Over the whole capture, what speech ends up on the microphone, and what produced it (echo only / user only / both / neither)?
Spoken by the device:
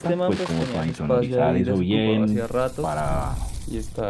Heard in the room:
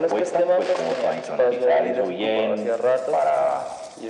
echo only